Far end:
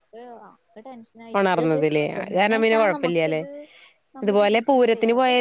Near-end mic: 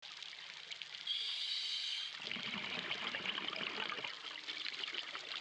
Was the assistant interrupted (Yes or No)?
No